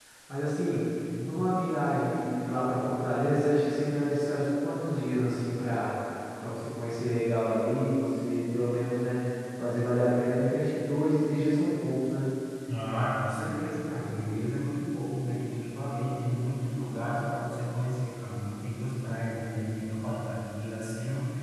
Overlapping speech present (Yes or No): No